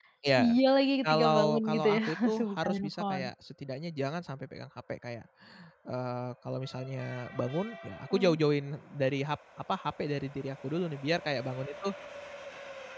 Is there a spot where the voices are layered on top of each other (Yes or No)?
Yes